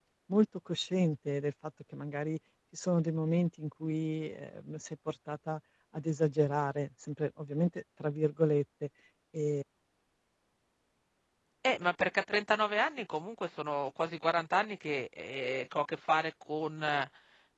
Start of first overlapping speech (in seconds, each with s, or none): none